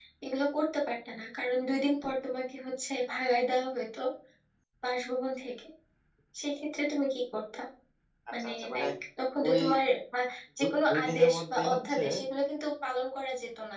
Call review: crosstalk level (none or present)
present